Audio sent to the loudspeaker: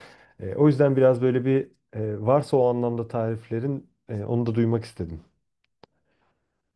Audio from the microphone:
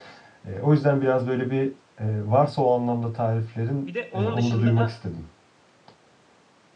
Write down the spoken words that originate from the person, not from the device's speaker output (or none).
Bir de onun dışında